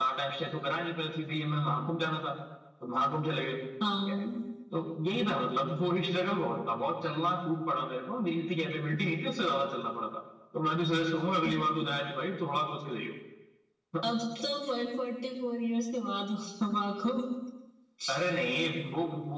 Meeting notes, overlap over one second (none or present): none